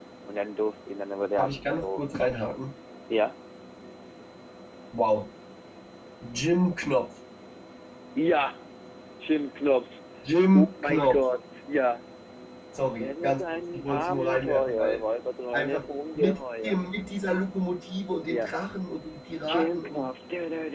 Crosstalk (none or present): present